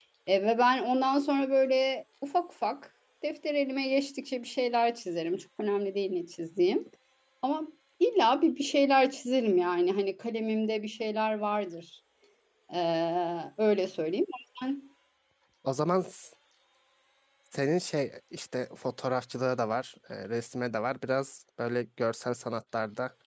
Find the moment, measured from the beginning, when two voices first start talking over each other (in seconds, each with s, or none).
none